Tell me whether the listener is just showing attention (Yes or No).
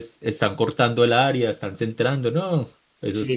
No